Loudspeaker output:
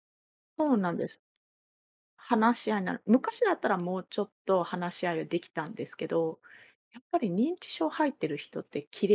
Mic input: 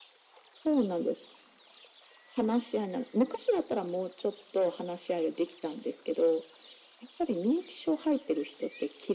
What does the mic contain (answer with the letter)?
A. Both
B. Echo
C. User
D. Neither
B